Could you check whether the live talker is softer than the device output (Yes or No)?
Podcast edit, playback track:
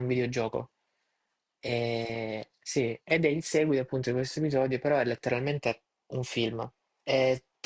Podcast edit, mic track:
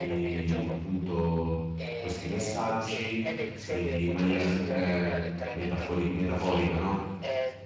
No